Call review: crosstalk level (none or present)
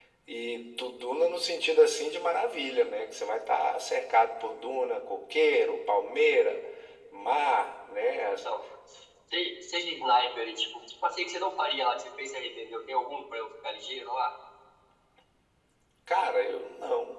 none